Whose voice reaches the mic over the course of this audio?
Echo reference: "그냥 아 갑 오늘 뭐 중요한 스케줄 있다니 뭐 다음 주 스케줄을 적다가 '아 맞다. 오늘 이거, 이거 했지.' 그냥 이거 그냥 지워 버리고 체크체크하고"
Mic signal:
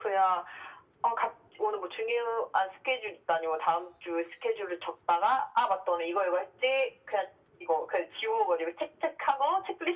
echo only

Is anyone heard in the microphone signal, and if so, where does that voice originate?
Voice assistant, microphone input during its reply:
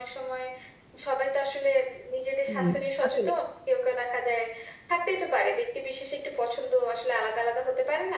both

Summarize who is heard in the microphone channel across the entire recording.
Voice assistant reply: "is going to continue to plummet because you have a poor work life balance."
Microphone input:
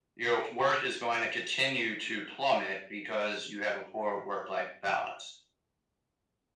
echo only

